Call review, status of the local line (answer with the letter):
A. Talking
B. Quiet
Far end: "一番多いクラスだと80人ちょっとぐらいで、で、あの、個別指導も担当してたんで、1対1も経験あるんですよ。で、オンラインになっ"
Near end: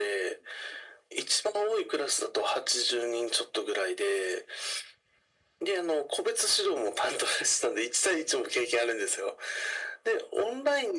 B